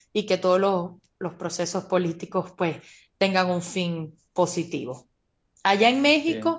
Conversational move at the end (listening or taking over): listening